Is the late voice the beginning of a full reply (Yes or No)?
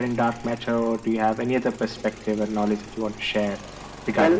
Yes